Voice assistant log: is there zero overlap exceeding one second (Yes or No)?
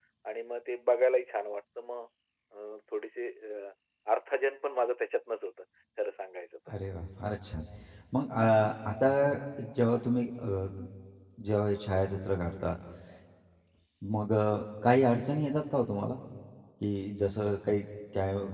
Yes